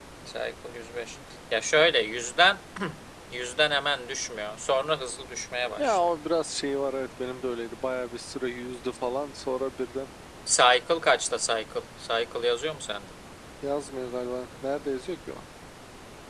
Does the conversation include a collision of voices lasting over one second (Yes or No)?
No